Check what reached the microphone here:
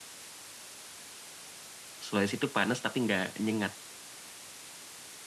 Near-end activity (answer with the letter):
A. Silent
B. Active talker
B